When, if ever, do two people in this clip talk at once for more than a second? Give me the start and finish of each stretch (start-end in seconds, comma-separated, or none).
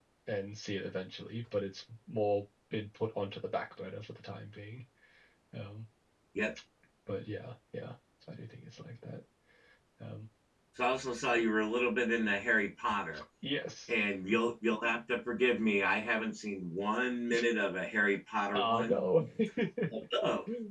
none